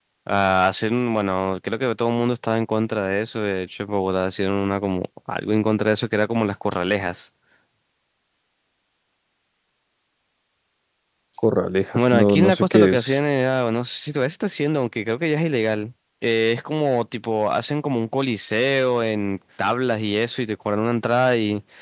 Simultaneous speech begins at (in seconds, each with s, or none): 11.9 s